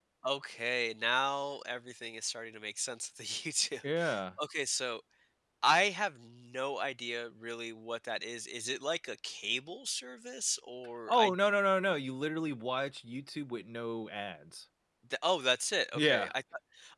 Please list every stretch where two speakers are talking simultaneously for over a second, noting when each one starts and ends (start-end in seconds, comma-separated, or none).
none